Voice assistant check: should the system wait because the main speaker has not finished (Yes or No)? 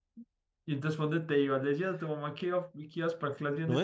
No